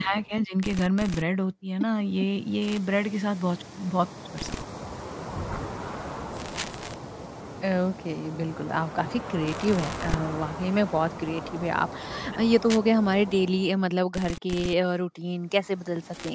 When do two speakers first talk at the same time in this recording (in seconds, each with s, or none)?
none